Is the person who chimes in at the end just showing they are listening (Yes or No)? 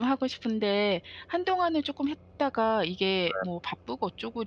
Yes